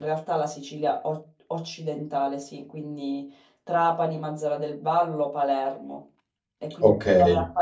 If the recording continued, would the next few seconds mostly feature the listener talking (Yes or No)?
No